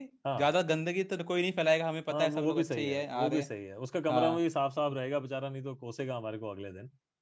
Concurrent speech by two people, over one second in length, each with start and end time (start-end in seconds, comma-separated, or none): 2.1-3.4